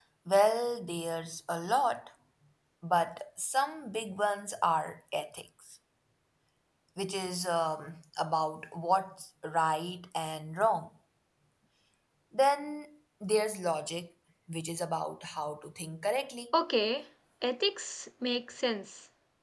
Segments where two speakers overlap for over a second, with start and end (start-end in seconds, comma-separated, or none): none